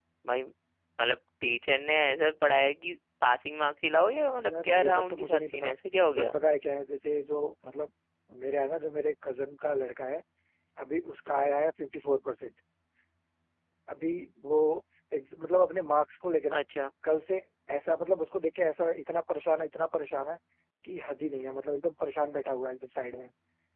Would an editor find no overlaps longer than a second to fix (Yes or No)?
No